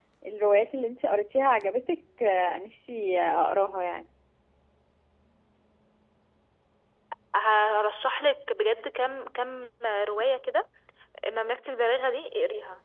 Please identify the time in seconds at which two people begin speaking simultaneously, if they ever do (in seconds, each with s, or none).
none